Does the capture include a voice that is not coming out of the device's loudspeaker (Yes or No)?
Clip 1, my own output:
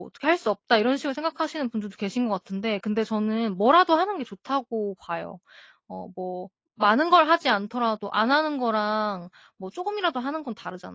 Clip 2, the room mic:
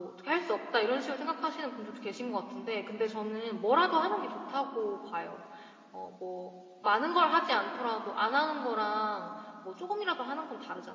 No